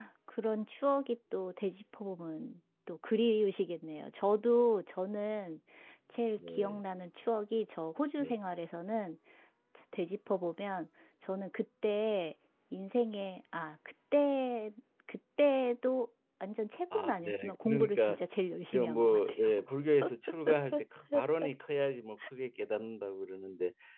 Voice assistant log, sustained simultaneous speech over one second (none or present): present